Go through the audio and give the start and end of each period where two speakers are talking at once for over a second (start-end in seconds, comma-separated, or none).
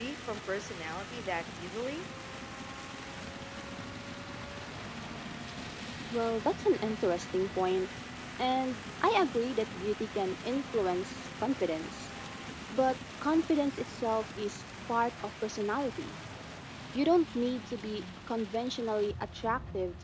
none